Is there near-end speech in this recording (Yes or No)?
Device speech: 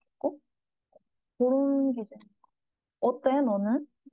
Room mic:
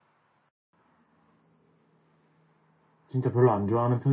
Yes